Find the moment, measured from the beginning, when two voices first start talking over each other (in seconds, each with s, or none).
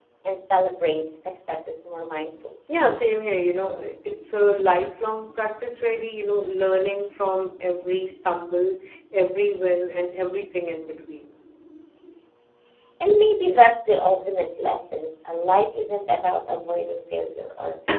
none